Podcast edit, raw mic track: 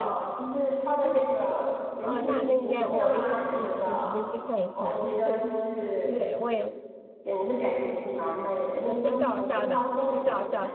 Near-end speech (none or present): present